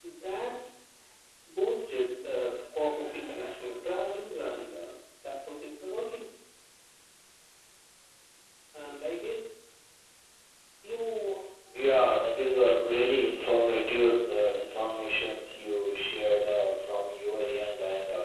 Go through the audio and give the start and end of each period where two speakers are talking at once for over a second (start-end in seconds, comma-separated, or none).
none